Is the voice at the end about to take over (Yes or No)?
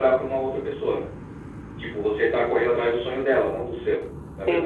Yes